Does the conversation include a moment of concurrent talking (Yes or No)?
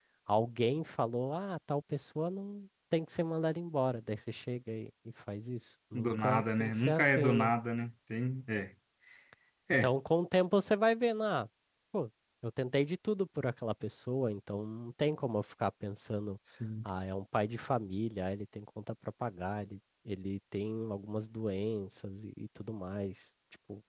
Yes